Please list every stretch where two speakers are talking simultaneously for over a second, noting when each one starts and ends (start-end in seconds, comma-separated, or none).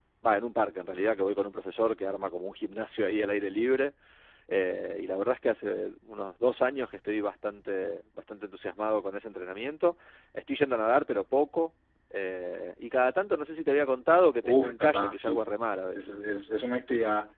14.4-16.0